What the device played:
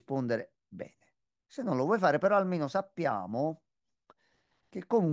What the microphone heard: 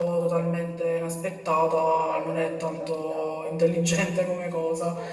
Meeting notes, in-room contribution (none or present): present